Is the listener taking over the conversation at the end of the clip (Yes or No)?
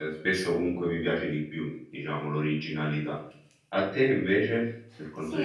Yes